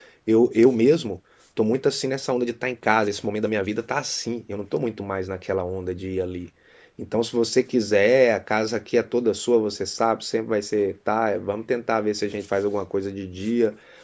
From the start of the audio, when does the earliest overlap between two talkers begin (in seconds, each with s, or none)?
none